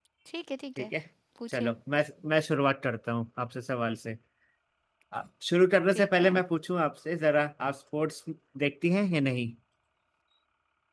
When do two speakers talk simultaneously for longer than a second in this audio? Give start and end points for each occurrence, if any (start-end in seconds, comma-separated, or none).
none